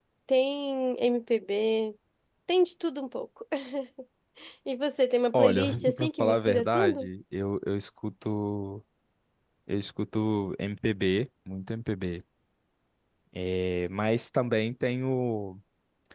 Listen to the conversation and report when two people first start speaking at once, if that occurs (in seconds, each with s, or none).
5.3 s